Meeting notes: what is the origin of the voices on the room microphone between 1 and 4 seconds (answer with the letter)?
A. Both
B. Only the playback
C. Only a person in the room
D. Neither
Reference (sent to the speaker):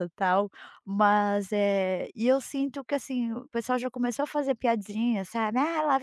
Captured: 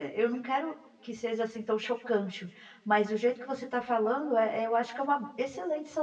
C